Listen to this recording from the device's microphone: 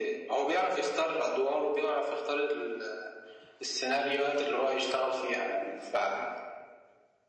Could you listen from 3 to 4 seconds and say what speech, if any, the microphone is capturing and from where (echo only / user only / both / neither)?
echo only